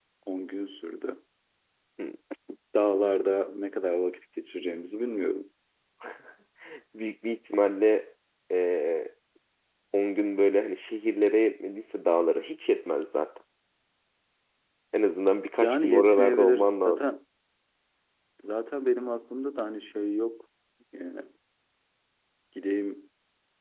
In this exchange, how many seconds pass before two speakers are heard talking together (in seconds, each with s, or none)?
15.6 s